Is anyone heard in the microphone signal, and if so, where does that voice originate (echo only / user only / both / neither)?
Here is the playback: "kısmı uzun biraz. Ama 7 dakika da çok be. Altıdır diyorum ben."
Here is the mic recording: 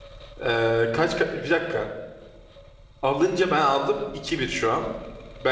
user only